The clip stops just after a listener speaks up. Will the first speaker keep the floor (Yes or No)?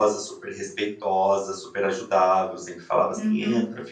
Yes